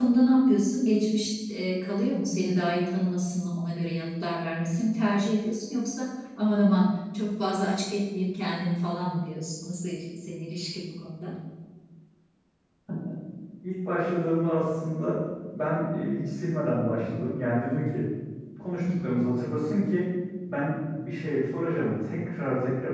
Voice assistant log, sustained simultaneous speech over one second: none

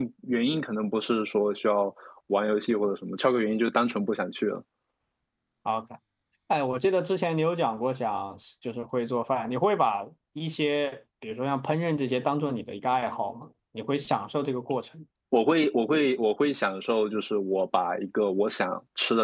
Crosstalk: none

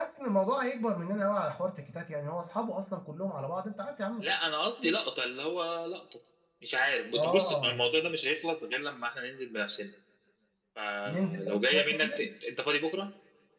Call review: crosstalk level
present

